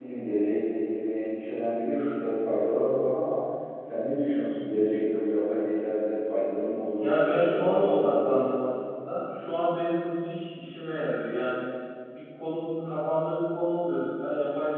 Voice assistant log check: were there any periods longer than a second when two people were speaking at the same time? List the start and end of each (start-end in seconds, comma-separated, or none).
7.0-8.5